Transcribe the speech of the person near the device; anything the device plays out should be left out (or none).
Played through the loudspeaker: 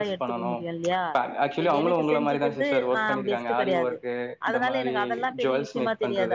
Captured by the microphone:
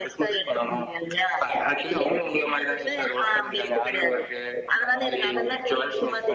none